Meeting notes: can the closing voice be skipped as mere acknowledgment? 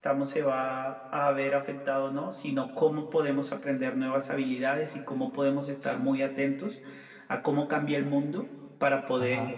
Yes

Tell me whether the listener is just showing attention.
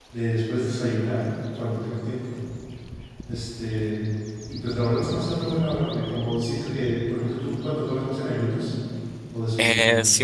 No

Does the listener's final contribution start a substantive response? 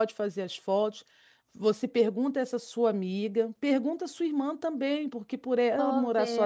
No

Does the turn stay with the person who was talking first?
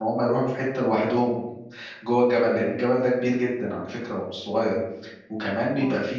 Yes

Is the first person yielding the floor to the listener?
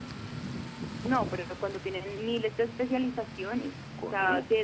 No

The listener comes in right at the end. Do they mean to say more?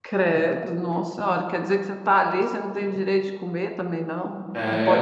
Yes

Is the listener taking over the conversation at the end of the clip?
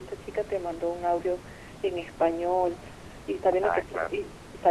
No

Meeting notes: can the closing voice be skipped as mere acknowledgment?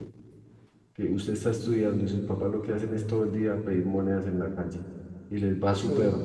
Yes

